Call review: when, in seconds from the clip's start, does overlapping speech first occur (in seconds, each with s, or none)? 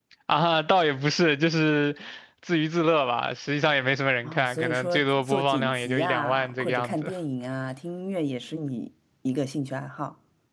4.2 s